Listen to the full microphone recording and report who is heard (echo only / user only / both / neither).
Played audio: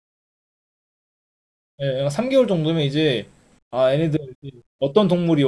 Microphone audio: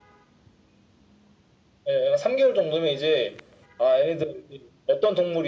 echo only